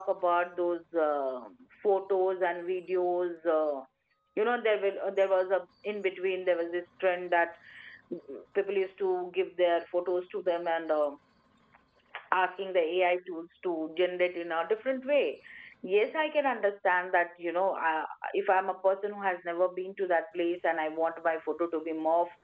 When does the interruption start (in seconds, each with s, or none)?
none